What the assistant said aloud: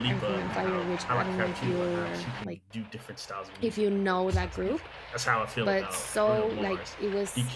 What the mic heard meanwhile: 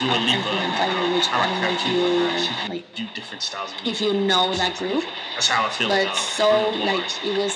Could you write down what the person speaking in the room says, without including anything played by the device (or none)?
none